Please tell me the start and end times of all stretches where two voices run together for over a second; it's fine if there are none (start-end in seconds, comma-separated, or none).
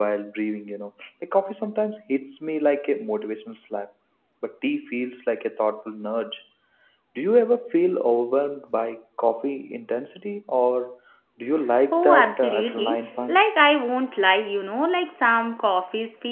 11.9-13.5